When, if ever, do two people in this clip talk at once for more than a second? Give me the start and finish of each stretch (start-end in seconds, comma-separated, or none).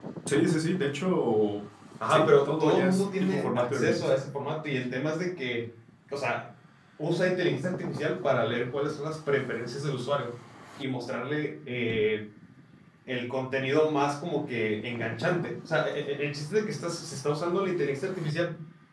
2.1-4.1